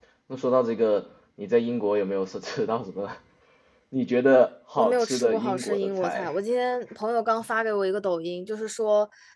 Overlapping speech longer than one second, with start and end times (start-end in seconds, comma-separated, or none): 4.8-6.3